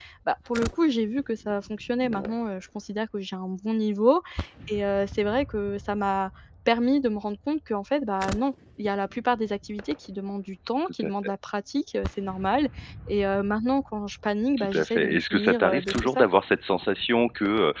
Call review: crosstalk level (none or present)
present